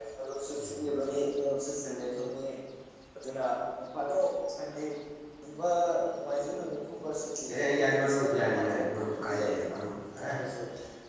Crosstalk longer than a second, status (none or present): present